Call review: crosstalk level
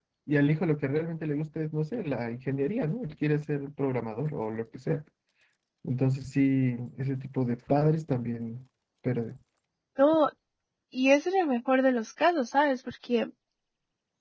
none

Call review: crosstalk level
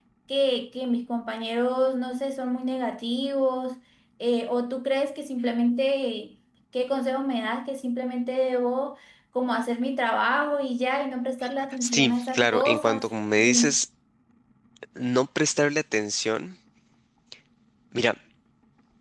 present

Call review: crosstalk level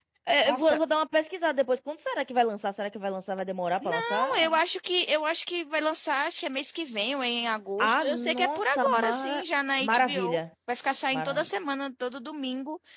present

